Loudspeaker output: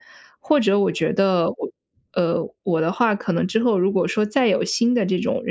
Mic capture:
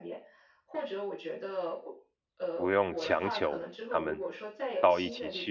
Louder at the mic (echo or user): user